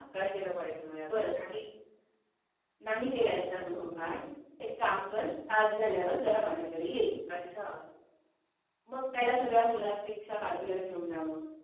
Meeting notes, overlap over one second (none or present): none